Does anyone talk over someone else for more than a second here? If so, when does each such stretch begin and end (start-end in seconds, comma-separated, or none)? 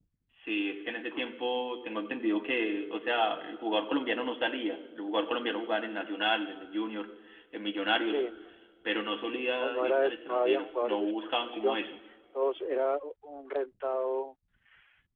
9.5-11.8